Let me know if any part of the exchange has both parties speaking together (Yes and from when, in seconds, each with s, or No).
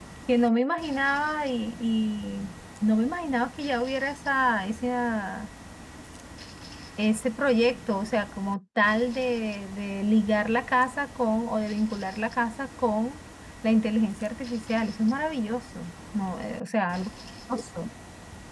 No